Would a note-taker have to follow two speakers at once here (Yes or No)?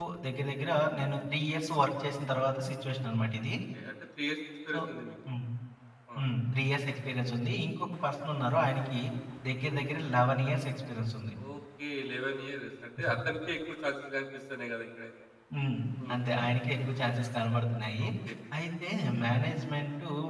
No